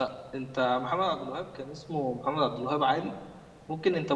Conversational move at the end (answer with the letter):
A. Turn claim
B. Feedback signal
B